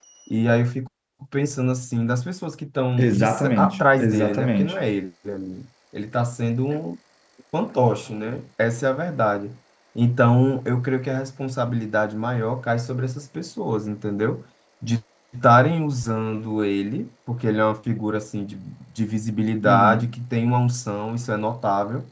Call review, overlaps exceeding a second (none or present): present